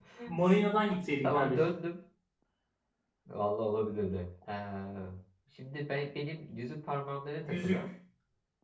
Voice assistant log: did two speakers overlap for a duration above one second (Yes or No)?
No